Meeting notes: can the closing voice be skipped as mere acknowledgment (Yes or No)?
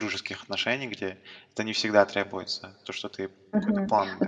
No